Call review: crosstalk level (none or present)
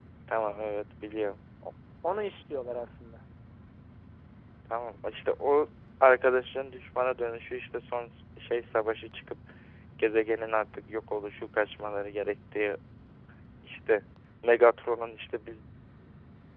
none